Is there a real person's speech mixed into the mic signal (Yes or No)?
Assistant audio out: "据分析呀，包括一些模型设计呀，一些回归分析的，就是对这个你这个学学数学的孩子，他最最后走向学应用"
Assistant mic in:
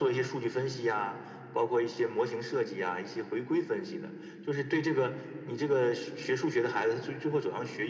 No